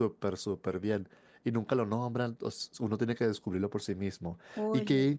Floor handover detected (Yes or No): No